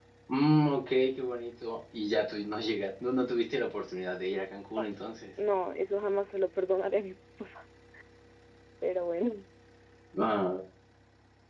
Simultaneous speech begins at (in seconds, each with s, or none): none